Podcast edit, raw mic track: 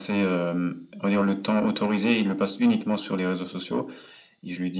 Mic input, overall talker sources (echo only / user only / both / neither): echo only